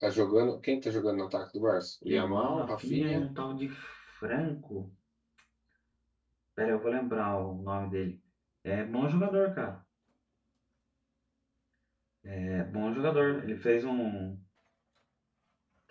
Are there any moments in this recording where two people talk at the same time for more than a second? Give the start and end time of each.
2.0-3.3

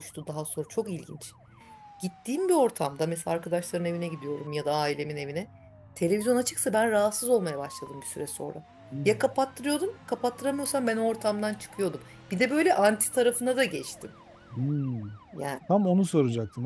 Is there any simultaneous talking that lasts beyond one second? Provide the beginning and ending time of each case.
none

